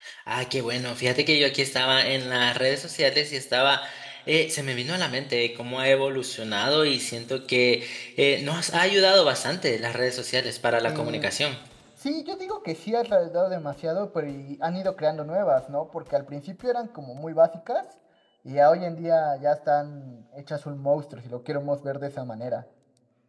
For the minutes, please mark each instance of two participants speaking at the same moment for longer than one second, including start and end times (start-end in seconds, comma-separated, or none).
none